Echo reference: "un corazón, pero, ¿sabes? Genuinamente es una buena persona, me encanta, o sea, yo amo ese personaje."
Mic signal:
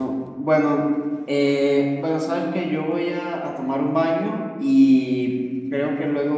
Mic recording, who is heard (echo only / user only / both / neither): user only